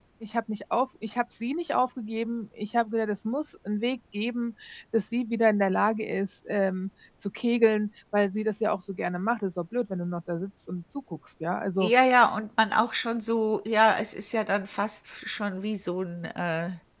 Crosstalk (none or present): none